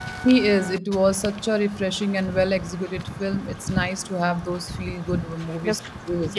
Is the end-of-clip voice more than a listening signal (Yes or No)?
Yes